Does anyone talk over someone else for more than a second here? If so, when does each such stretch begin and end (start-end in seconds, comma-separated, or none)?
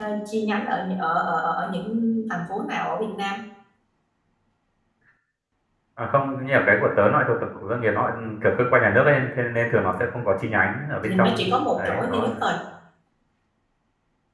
11.0-12.4